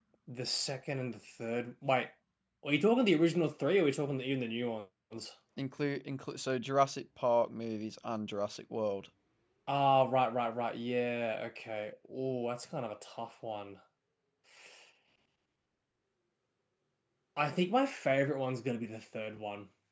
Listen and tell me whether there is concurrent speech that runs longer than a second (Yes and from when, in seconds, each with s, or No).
No